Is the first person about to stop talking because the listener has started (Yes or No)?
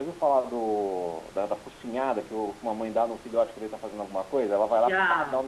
No